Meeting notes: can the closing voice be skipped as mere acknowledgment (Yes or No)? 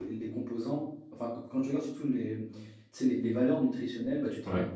Yes